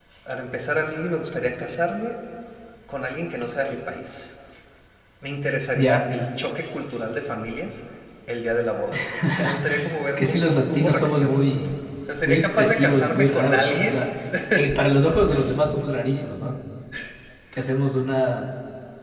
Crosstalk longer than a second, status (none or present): present